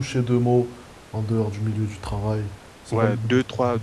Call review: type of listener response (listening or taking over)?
taking over